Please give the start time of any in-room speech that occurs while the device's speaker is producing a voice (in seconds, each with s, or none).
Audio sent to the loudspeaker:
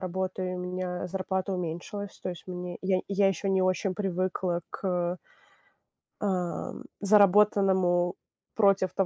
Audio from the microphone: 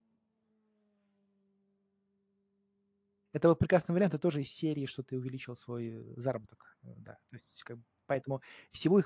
3.3 s